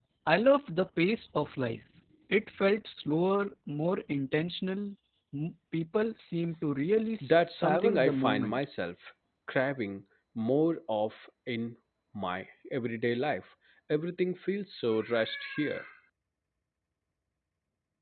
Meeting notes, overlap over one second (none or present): present